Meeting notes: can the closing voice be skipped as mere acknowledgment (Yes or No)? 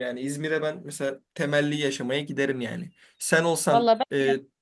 Yes